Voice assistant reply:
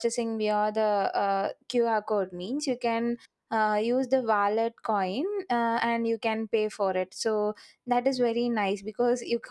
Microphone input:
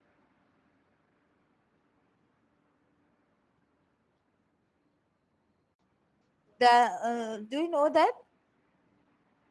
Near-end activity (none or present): present